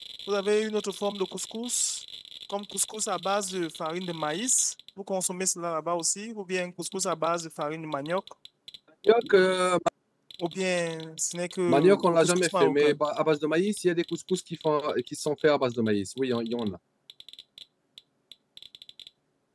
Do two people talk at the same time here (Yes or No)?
Yes